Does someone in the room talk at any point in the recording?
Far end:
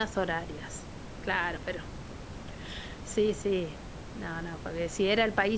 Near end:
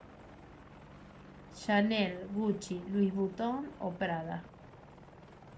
Yes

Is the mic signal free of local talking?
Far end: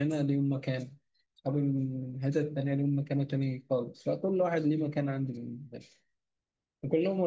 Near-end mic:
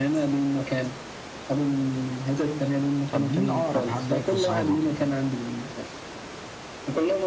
No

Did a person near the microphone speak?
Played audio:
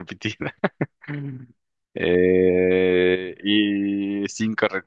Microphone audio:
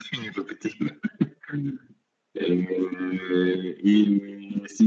No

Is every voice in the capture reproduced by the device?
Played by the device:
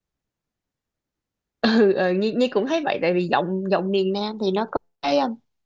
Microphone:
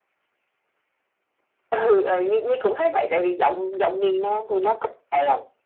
Yes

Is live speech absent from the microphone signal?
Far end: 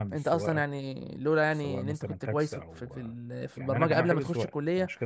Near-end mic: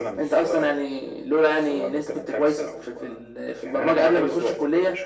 Yes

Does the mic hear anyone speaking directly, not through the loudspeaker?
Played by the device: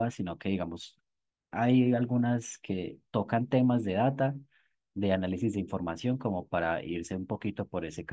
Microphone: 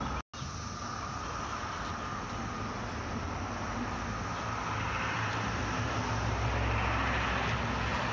No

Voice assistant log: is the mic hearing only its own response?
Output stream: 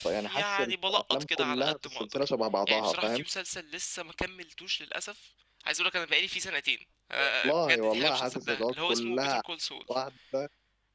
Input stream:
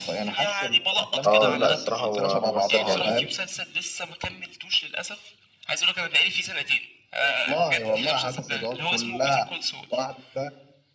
No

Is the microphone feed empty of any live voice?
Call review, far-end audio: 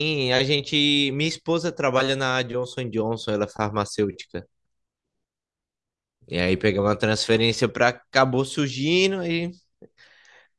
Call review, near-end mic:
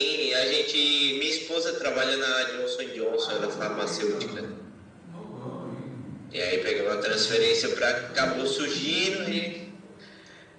No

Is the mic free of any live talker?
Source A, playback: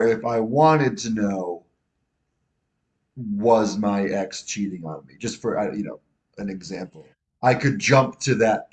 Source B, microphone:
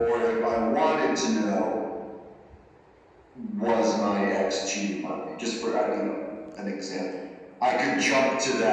Yes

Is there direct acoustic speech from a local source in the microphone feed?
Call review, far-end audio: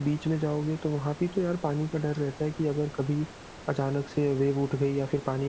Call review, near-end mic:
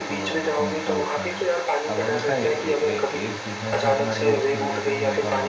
Yes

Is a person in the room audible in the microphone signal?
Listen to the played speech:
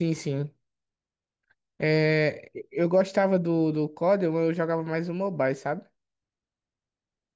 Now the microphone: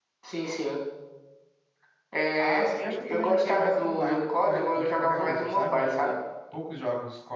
Yes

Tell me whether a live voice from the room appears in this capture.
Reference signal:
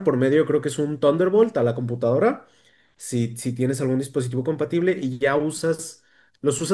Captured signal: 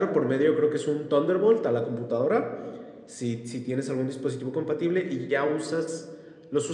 No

